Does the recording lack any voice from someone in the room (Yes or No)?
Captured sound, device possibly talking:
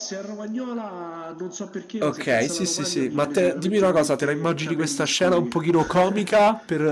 No